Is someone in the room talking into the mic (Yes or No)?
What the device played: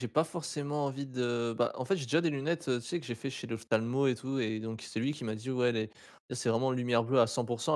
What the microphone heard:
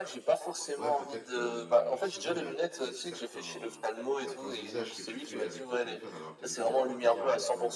Yes